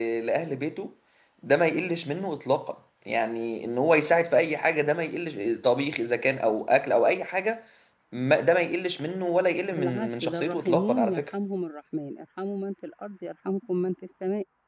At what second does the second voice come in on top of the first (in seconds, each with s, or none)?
9.7 s